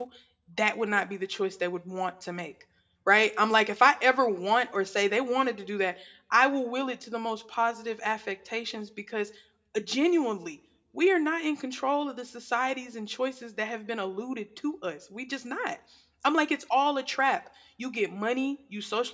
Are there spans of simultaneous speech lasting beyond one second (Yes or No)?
No